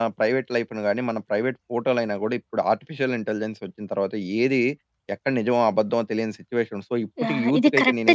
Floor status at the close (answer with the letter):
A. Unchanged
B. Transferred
B